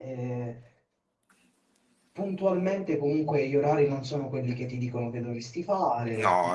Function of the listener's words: taking over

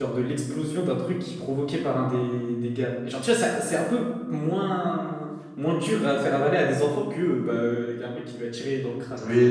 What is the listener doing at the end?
taking over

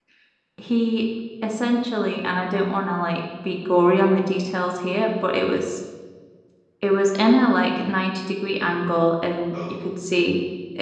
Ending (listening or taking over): listening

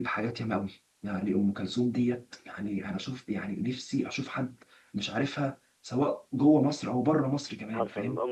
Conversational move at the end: taking over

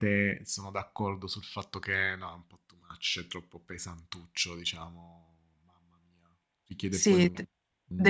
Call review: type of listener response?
taking over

